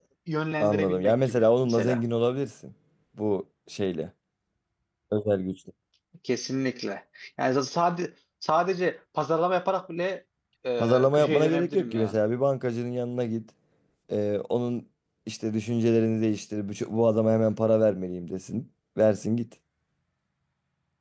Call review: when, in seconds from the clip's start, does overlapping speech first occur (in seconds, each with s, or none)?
0.6 s